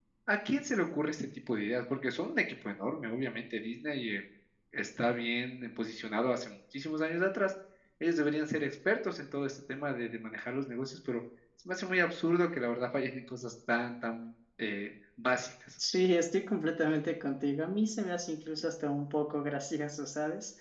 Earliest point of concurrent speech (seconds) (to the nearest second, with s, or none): none